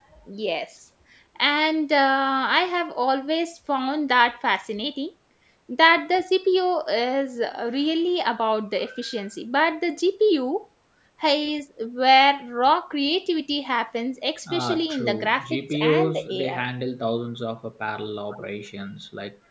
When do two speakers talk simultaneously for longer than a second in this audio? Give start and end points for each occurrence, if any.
14.5-16.6

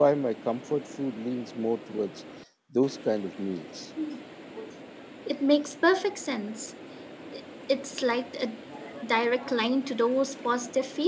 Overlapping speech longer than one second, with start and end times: none

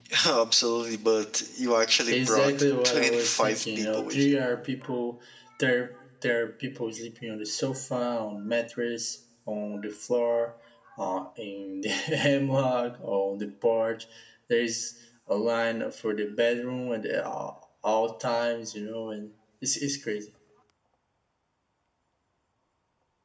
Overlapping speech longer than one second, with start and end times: 2.1-4.3

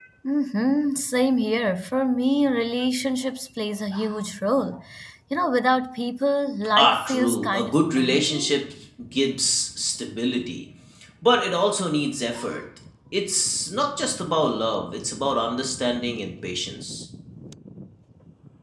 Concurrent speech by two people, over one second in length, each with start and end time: 6.8-8.6

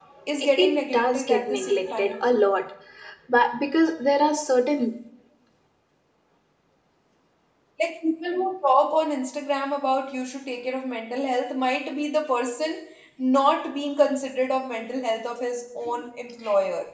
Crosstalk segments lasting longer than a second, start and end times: 0.6-2.3

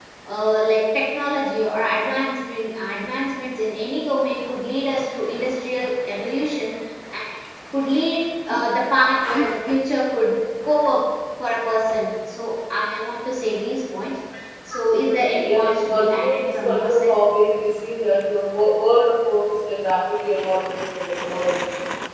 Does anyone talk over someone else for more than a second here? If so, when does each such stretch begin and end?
15.3-17.1

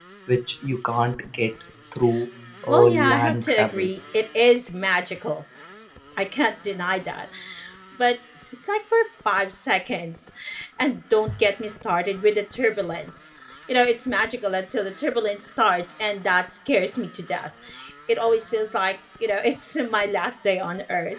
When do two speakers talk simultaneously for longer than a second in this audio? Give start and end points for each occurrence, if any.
2.7-3.9

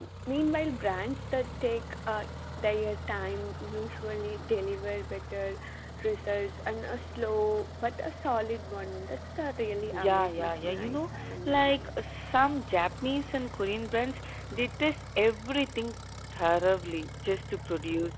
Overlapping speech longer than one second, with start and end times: 9.9-11.9

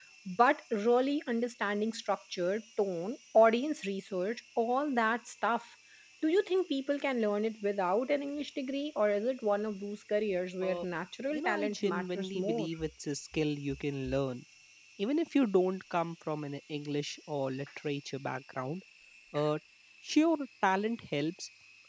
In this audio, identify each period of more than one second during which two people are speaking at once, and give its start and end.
11.3-12.7

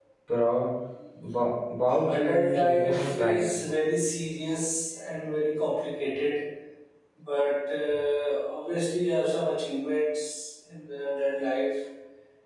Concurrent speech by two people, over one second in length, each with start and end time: 2.1-3.4

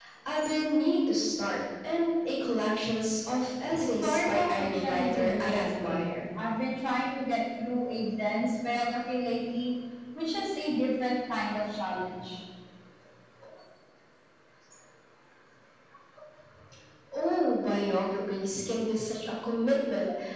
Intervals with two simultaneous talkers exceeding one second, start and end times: 3.8-6.0

